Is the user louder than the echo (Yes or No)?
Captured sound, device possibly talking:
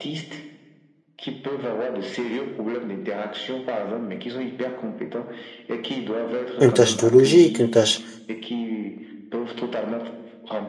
Yes